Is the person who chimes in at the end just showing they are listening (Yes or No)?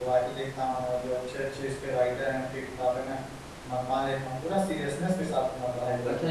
No